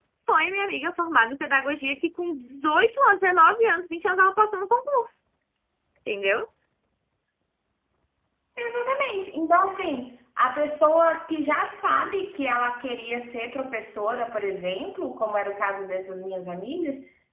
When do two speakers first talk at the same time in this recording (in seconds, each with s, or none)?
none